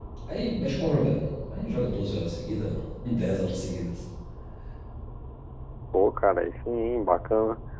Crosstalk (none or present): none